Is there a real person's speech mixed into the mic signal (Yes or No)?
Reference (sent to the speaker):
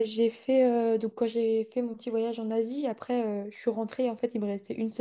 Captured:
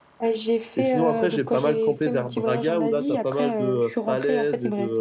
Yes